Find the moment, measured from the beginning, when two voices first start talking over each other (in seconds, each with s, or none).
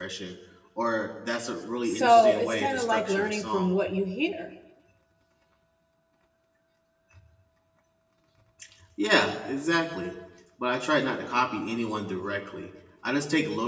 1.9 s